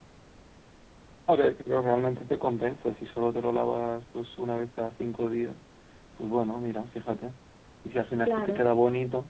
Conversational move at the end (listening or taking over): listening